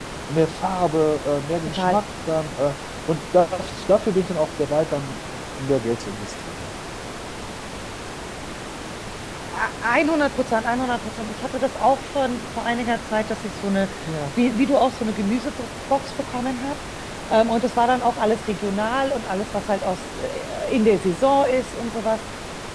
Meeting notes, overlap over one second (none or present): none